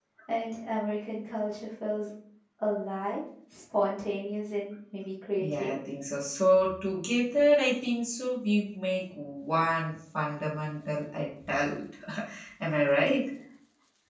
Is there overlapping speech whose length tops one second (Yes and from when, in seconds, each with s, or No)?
No